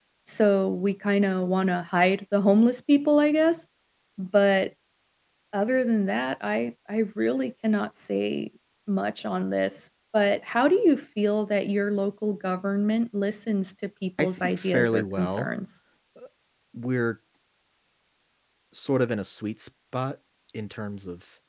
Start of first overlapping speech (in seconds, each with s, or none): 14.2 s